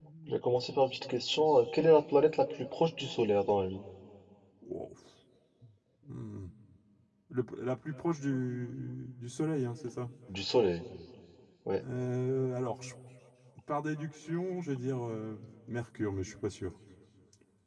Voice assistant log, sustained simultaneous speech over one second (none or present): none